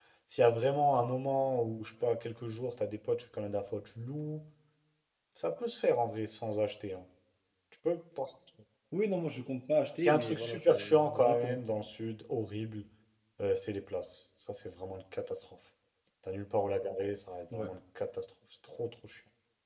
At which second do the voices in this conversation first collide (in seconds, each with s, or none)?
10.0 s